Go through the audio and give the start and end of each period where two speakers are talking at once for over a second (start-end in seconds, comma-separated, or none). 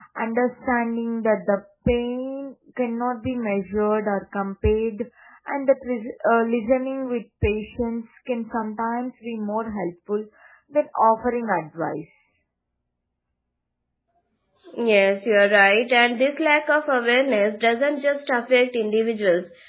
none